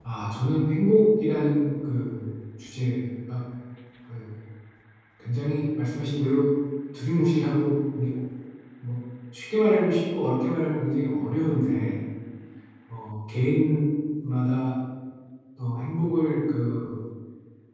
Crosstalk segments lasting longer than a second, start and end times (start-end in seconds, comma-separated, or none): none